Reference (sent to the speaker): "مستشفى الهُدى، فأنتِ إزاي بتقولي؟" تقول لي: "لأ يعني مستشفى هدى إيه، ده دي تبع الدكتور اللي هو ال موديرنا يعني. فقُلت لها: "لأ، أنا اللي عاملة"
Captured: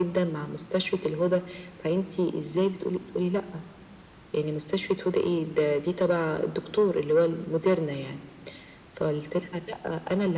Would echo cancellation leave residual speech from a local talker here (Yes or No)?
No